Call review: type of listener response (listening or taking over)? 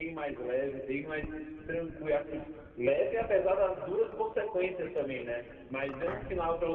listening